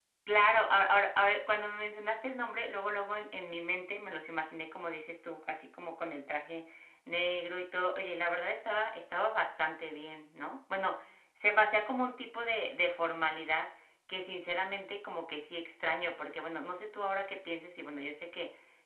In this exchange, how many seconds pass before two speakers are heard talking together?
none

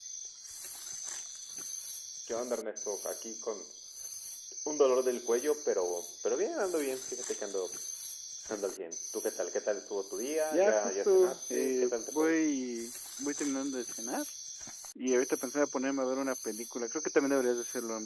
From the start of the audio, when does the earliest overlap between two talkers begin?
10.5 s

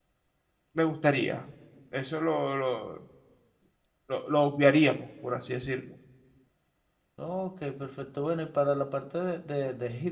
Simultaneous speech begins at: none

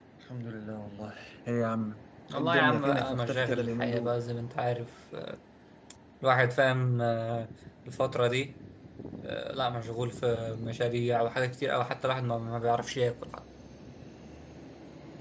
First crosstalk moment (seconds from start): 2.3 s

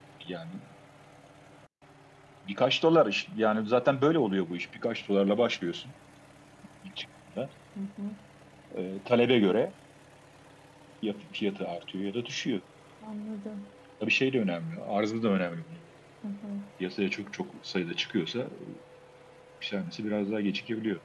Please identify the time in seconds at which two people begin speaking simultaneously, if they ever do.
none

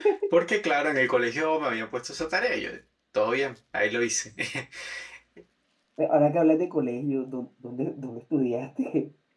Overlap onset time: none

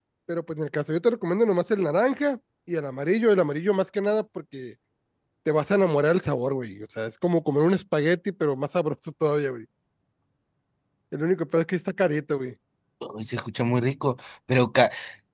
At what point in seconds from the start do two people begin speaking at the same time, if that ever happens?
none

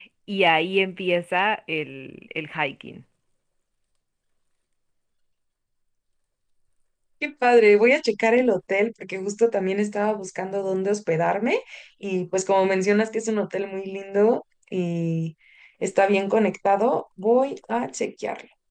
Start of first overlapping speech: none

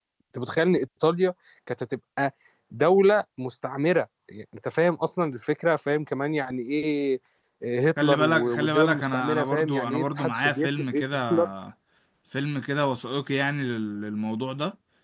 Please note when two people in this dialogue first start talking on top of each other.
8.0 s

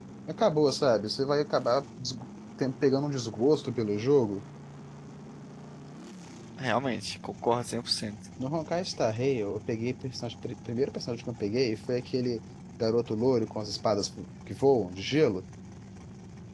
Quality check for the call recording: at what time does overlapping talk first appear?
none

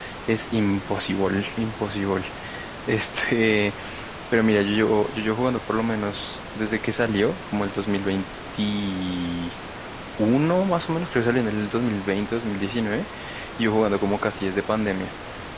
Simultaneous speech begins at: none

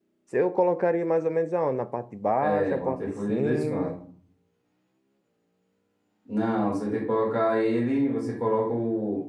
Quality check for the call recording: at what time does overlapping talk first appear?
2.4 s

